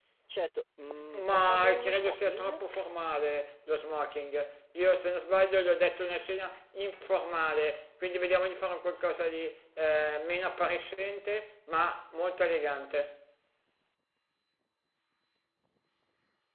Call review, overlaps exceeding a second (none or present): present